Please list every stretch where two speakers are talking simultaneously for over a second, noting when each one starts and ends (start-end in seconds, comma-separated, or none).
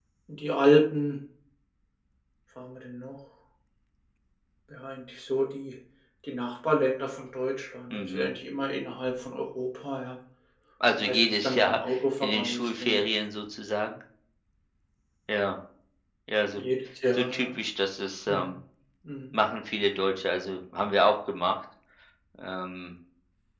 11.0-13.0